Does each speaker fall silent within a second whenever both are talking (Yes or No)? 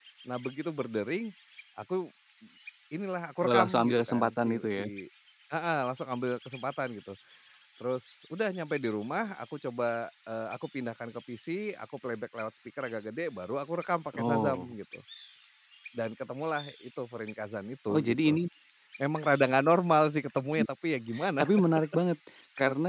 No